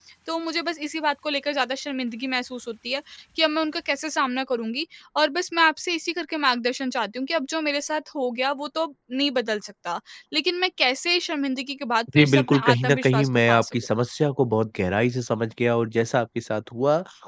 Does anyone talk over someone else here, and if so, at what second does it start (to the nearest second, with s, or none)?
12 s